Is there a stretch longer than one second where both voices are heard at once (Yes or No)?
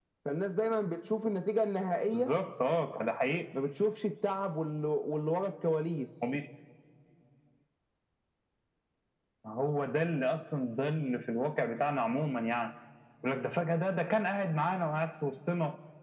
No